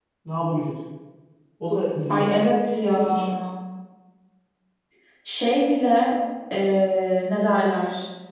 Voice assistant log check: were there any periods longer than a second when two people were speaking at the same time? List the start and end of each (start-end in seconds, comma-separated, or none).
none